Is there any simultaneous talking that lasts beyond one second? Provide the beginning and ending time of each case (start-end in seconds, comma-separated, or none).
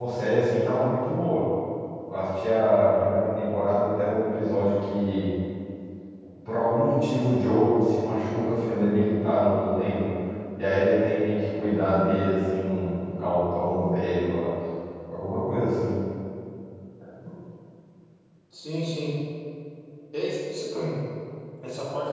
none